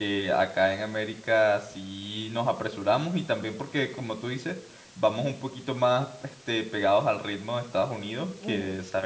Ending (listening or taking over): listening